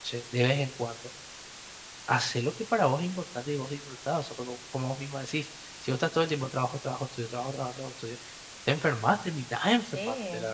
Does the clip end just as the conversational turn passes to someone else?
Yes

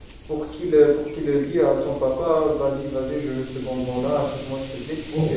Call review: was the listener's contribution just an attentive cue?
Yes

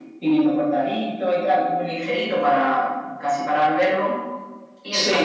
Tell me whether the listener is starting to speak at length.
No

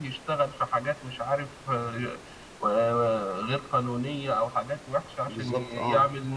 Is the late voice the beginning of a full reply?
No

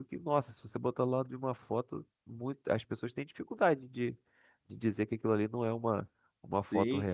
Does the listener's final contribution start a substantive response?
Yes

